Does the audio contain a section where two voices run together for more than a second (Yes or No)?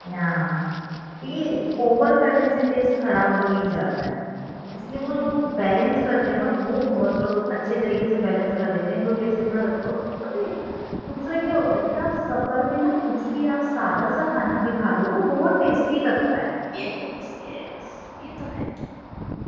No